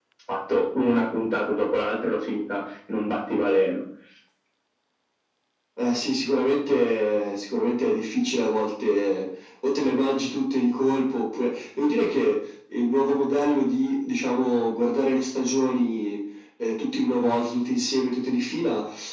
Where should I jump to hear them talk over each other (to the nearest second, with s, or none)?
none